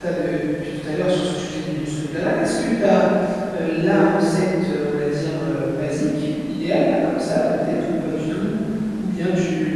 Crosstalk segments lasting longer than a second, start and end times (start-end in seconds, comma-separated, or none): none